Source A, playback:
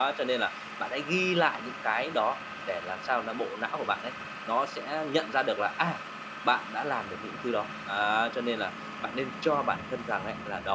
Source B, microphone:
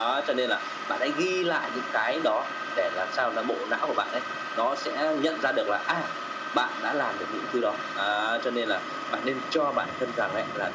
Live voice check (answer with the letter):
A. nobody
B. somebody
A